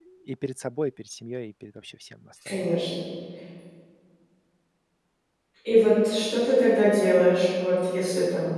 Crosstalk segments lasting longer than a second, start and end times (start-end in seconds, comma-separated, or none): none